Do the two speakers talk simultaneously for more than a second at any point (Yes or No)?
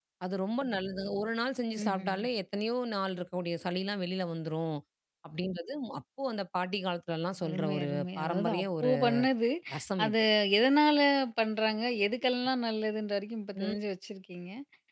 Yes